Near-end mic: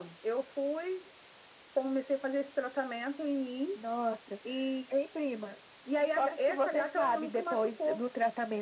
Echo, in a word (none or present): present